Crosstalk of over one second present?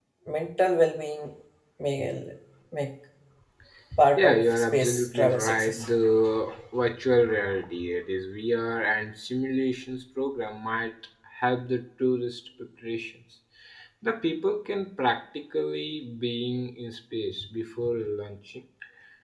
Yes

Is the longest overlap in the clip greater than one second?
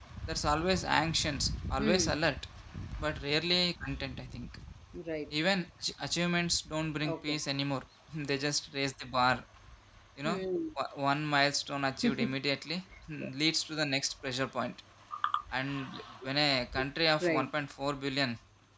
No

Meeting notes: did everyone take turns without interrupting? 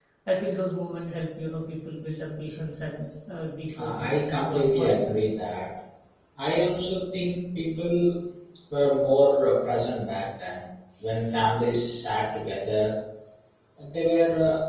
No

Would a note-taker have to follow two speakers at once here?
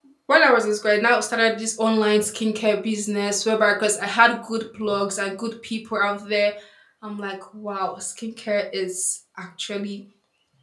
No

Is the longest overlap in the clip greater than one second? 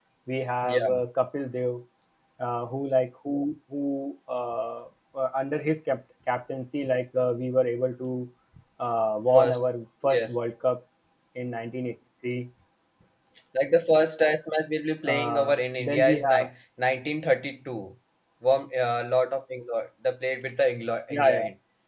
Yes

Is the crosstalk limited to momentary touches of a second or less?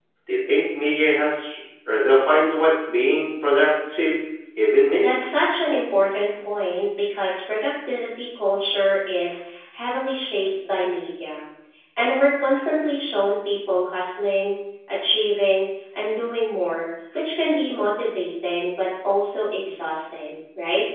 Yes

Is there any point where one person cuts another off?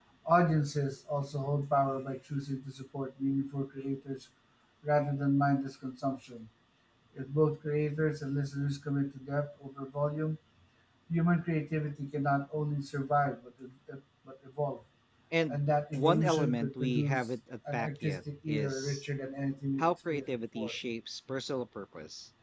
Yes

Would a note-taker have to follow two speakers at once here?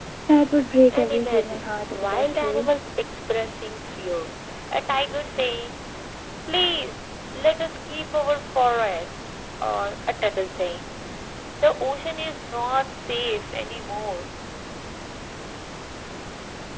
Yes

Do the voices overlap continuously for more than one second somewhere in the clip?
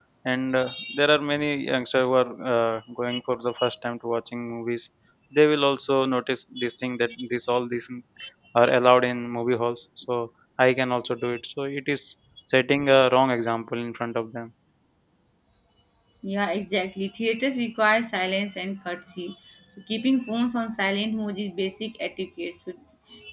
No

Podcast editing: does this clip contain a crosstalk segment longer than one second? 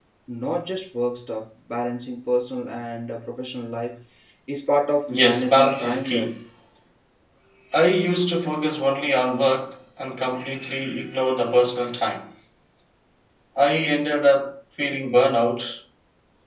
Yes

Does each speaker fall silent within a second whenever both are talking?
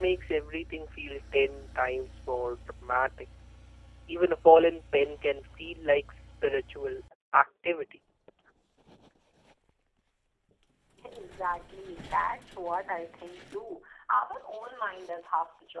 Yes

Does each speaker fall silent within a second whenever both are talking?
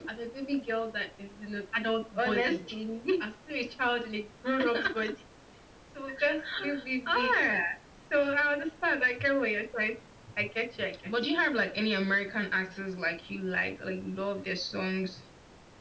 Yes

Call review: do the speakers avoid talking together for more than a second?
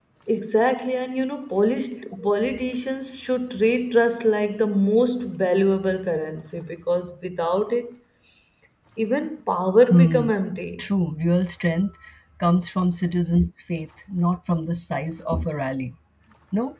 Yes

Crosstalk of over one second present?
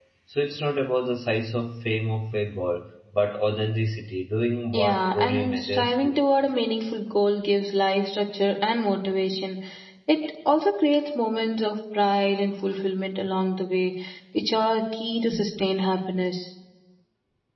Yes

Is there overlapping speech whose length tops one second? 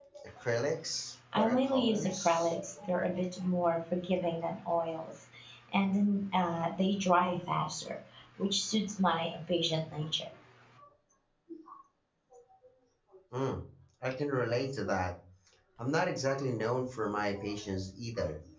Yes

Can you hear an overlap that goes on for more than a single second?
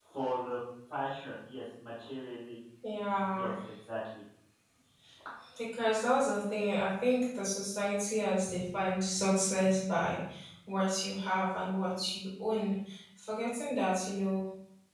No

